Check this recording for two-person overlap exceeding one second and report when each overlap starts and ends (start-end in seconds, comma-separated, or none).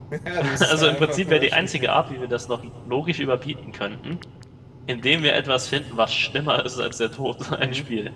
0.6-1.9